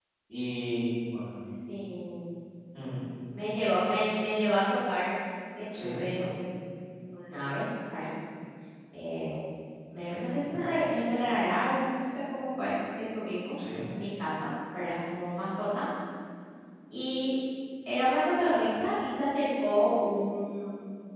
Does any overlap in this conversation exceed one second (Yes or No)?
No